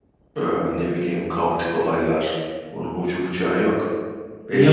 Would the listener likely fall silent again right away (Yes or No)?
Yes